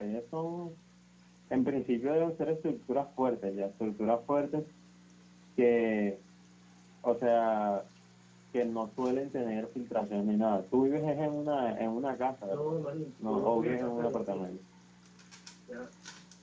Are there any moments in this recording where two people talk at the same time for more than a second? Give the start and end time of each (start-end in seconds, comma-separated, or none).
13.3-14.6